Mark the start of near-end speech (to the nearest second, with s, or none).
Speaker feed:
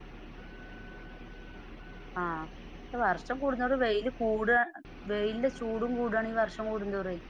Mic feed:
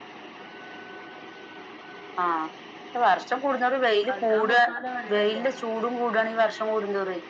4 s